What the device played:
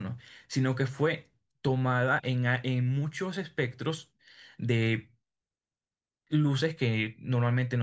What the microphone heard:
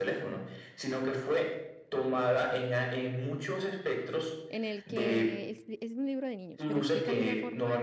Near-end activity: present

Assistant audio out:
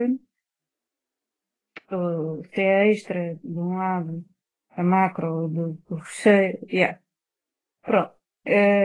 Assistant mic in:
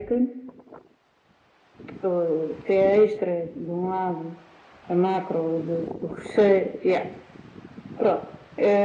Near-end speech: none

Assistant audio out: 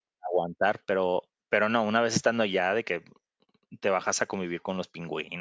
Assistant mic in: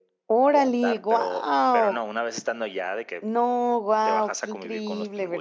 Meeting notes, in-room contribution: present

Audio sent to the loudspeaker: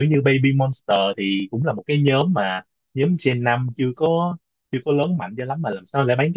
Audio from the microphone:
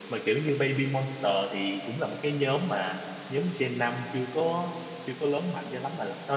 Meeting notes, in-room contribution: none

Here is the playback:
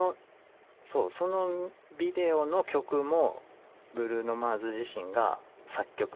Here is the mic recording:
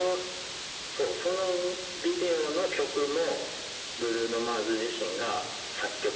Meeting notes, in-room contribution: none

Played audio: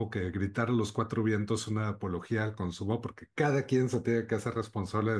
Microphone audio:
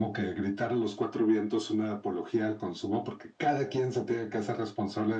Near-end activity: none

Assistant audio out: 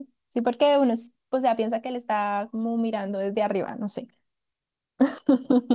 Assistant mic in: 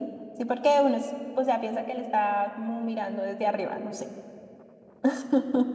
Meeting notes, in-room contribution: none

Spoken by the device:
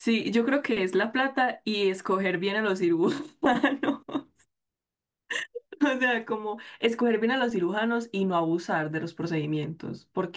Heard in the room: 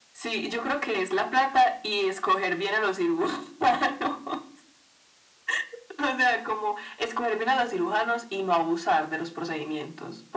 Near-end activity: none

